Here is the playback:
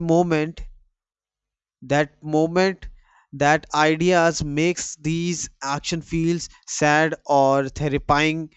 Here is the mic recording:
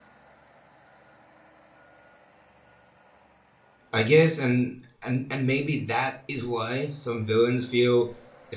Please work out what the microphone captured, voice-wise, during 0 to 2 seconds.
neither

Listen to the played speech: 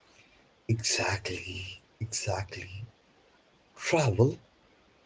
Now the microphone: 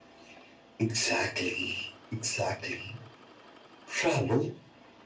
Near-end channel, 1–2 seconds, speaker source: echo only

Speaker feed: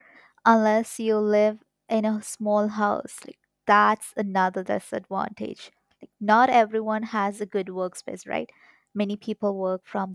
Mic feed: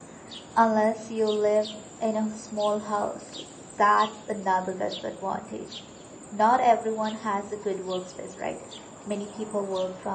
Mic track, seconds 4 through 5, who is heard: echo only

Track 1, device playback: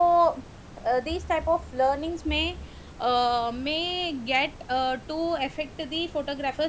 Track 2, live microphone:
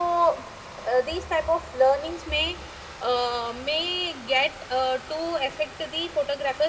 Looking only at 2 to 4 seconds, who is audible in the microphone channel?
echo only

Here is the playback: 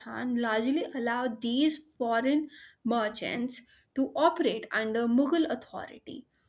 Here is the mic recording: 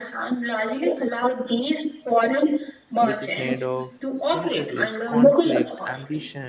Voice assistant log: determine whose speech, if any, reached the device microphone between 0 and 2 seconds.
echo only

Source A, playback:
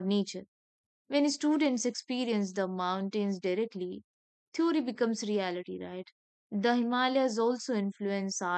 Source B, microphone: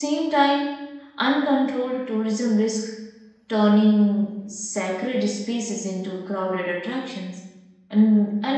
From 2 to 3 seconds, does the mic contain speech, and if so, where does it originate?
user only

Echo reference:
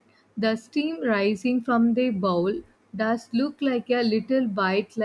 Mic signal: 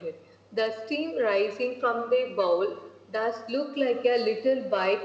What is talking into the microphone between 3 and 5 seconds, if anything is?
echo only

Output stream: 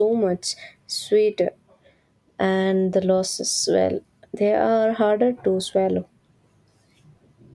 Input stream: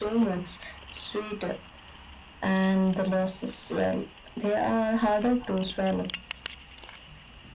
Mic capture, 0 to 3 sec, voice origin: echo only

